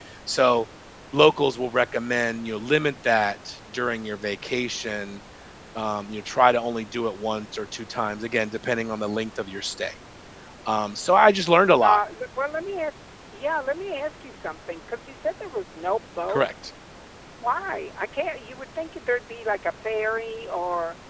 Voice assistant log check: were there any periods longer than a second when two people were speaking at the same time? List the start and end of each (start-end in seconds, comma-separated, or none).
none